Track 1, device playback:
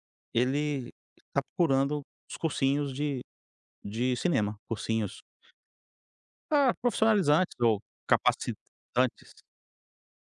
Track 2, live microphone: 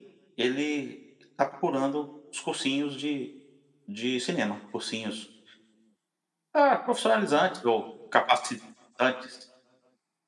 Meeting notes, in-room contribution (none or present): none